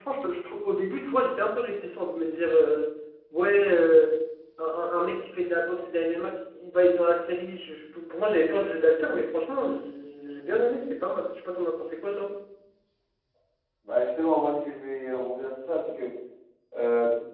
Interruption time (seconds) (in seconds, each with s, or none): none